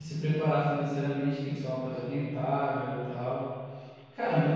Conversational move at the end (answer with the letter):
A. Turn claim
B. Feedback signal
B